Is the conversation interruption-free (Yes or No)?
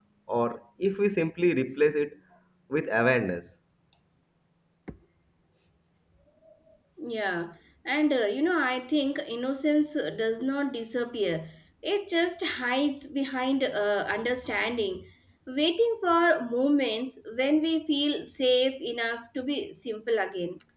Yes